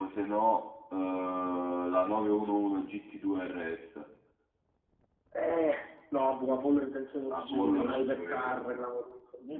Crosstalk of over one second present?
Yes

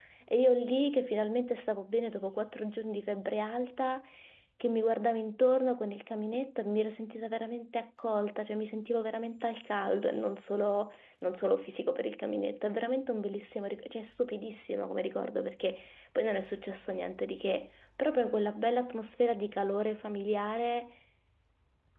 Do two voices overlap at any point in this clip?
No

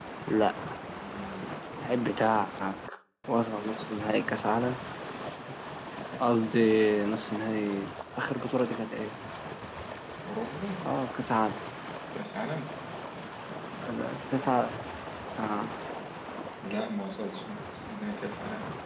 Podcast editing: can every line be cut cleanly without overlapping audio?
Yes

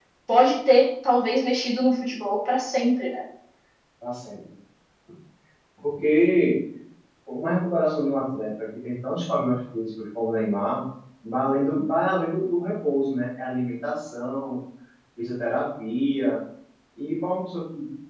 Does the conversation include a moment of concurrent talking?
No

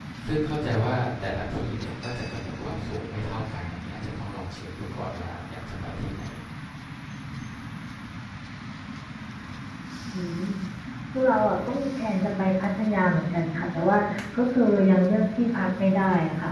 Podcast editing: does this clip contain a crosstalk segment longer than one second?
No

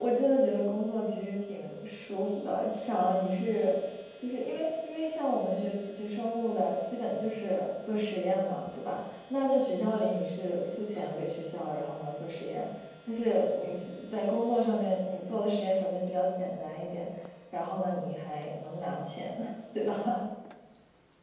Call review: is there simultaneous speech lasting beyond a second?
No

